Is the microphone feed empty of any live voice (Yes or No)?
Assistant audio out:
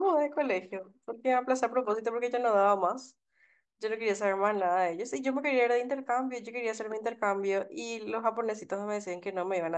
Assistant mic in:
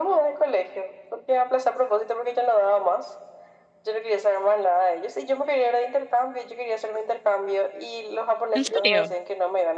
No